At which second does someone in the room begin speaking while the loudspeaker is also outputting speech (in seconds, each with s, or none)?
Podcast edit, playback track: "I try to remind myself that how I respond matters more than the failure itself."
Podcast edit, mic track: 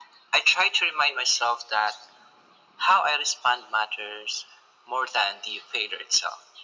none